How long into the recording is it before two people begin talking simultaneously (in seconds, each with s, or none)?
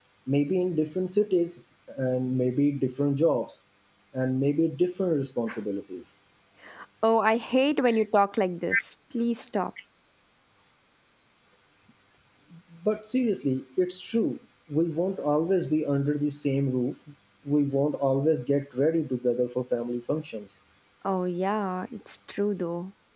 none